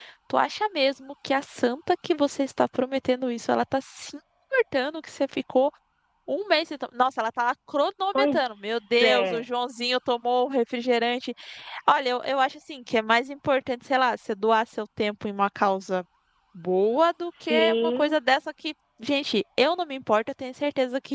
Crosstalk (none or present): present